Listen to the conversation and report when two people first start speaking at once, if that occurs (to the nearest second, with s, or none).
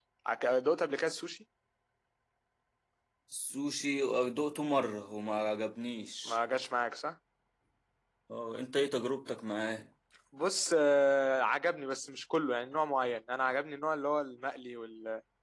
none